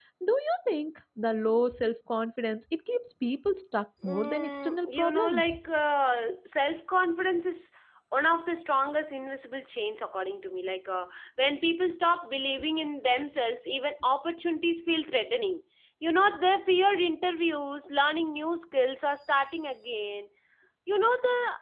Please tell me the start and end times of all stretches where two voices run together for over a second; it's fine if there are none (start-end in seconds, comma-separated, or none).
4.0-5.6